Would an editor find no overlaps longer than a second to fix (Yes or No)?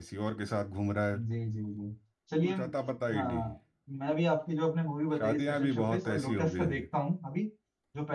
No